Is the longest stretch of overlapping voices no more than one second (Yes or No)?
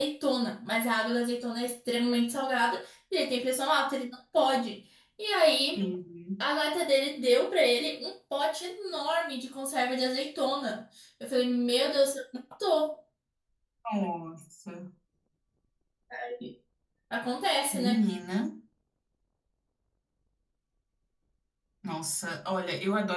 Yes